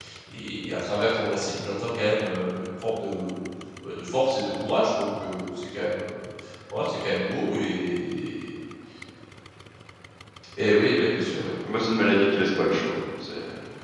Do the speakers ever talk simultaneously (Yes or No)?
No